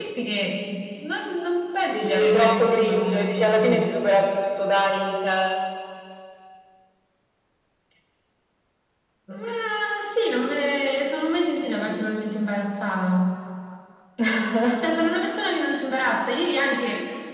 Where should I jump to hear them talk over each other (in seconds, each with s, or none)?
1.9 s